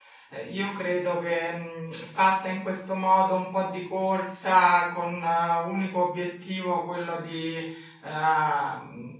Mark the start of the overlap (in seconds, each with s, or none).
none